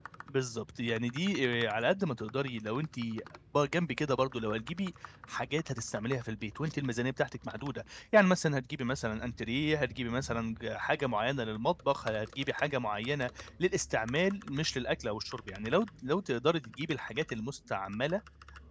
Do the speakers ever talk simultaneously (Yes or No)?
No